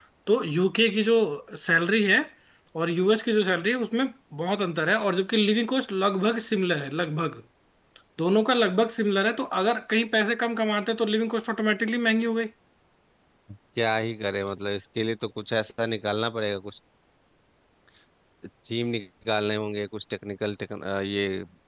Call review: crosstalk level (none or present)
none